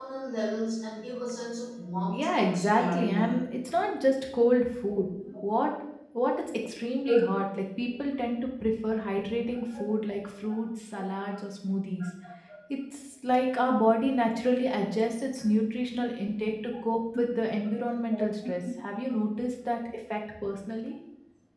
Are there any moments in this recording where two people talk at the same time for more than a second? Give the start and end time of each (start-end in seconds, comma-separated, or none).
2.1-3.4